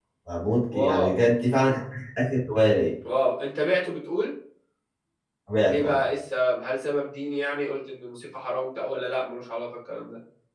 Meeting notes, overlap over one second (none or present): none